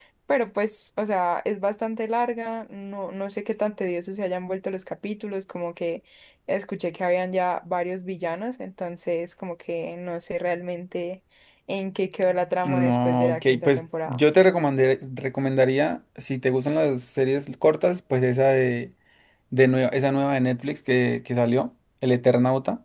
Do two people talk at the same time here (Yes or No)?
Yes